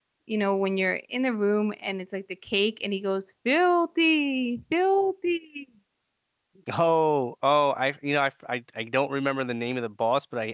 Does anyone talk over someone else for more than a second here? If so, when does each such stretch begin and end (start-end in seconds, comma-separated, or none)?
none